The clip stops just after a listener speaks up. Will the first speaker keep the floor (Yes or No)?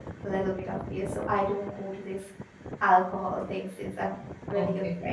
No